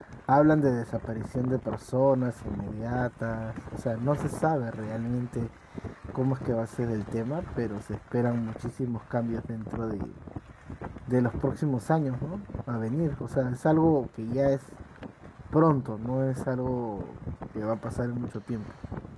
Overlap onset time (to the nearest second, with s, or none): none